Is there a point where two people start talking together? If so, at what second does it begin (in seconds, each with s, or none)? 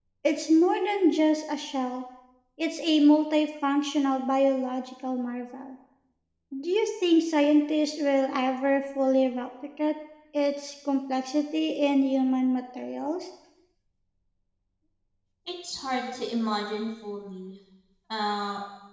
none